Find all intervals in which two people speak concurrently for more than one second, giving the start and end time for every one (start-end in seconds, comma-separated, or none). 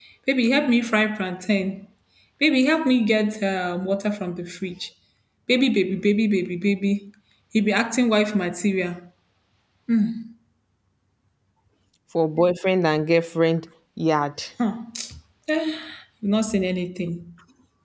none